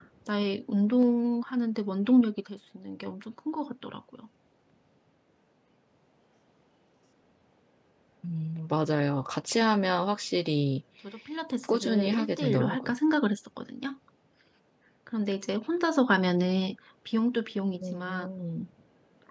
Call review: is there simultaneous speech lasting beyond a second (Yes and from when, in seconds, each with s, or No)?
Yes, from 11.7 s